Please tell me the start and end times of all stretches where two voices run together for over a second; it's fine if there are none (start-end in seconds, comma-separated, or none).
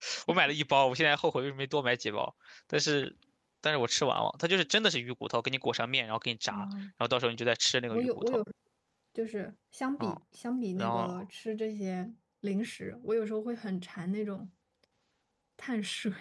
none